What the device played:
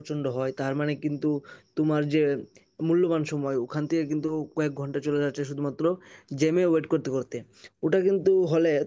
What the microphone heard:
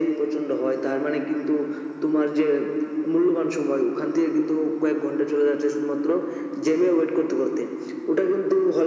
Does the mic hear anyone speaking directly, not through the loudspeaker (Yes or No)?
No